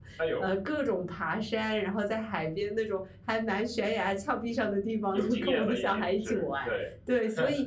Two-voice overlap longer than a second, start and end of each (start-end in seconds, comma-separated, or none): 5.1-6.7